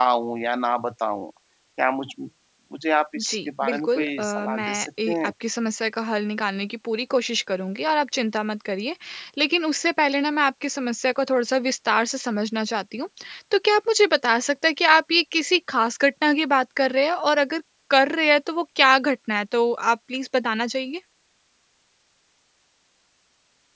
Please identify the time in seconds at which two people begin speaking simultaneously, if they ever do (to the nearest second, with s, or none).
3 s